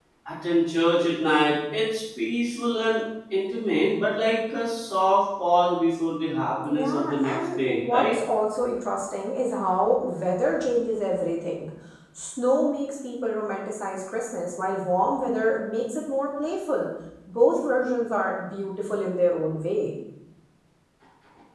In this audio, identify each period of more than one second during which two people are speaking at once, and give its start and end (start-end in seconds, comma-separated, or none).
6.7-8.1